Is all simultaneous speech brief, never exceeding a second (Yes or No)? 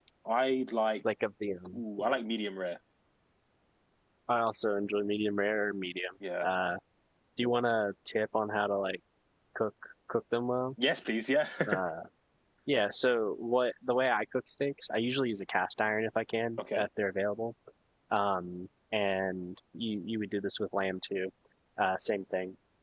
Yes